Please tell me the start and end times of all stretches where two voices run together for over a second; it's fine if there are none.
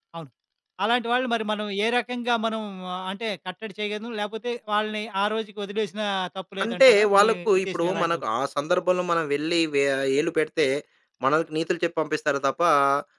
6.6-8.2

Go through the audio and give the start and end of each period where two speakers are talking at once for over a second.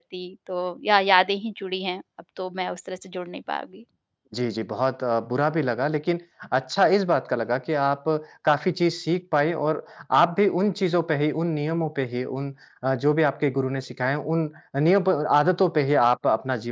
none

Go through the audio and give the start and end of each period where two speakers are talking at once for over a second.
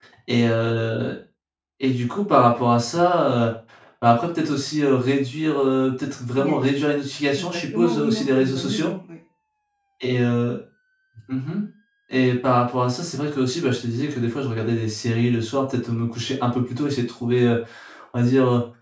7.4-8.9

